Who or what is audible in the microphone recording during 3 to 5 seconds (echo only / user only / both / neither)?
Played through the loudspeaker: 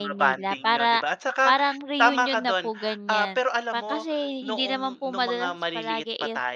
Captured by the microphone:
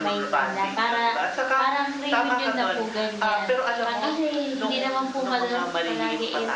echo only